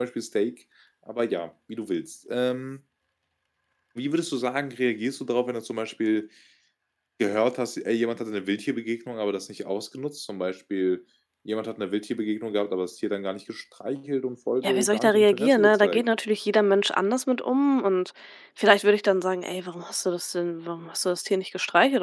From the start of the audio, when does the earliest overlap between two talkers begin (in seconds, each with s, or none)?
14.6 s